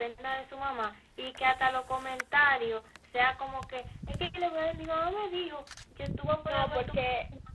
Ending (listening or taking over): taking over